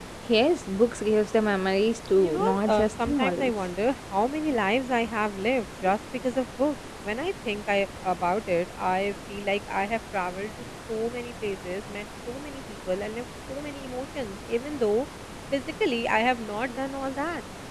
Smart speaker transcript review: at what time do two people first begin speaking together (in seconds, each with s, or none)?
2.1 s